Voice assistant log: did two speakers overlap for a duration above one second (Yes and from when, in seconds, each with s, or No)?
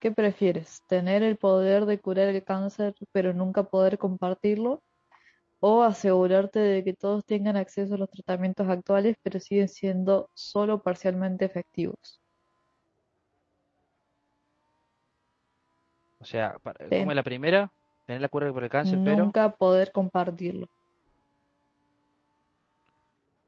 No